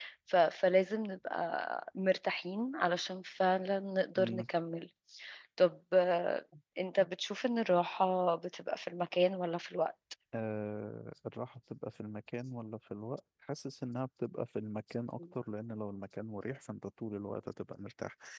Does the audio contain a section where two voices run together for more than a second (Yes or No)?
No